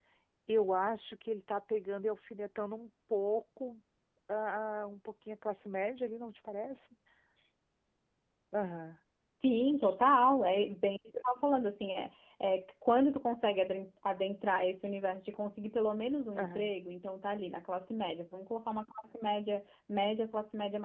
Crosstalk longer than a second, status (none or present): none